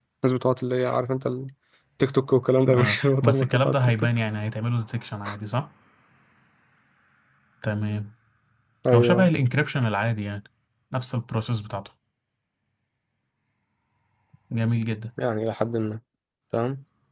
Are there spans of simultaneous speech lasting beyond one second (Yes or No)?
Yes